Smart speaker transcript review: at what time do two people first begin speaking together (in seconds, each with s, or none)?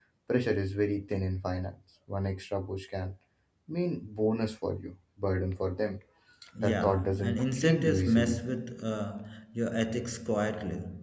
6.6 s